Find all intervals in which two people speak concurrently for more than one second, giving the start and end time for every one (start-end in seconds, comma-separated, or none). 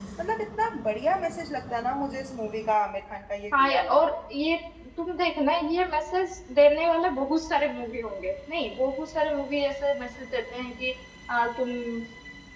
none